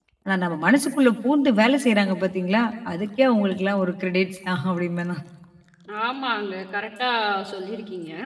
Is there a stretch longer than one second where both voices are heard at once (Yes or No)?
No